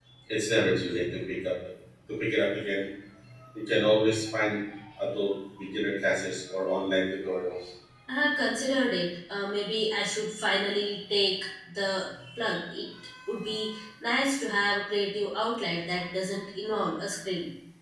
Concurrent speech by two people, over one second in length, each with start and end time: none

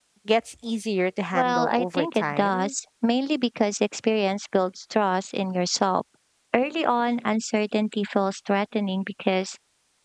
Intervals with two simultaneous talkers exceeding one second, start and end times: 1.3-2.7

